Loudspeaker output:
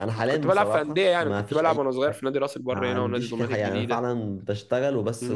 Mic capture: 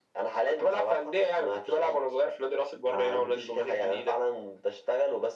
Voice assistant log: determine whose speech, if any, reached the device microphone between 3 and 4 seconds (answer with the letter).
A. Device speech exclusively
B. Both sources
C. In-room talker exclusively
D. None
A